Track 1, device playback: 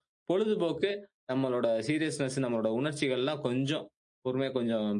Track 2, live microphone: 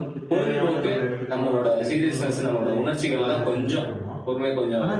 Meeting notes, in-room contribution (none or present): present